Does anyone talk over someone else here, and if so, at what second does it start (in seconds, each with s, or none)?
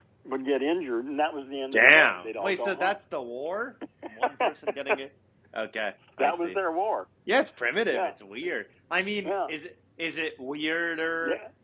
1.7 s